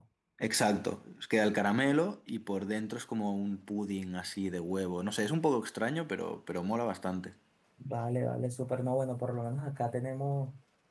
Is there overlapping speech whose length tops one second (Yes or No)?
No